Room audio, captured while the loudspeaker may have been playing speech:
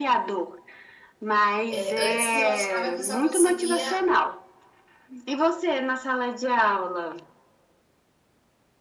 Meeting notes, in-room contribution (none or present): present